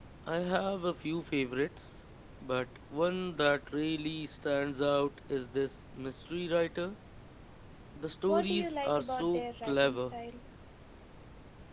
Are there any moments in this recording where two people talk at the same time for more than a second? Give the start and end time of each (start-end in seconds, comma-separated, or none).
8.3-10.2